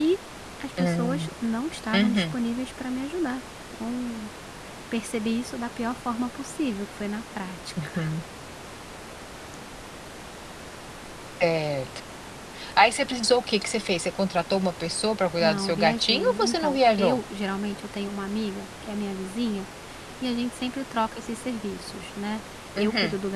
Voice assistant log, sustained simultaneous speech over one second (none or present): present